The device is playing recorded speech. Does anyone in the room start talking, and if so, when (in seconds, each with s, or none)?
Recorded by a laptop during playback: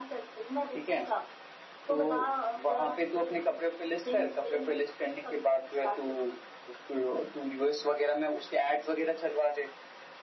none